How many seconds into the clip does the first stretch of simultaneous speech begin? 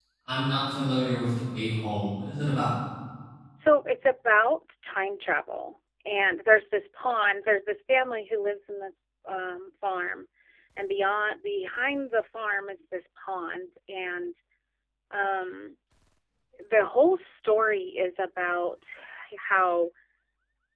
none

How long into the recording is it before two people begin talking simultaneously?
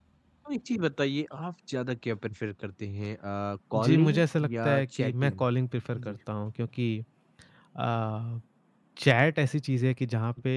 3.7 s

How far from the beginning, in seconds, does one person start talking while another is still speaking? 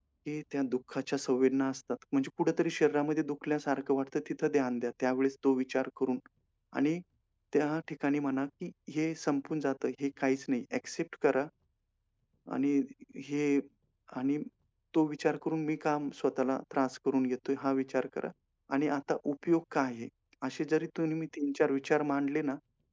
none

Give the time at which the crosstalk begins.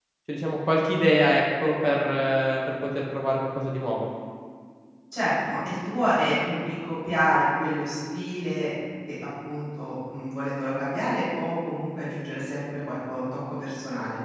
none

